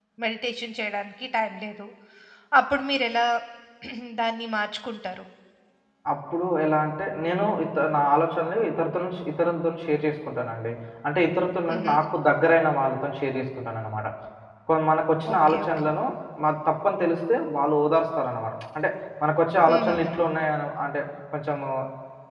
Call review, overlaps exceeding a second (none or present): none